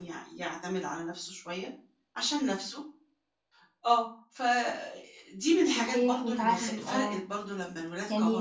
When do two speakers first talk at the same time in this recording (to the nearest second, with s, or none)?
6 s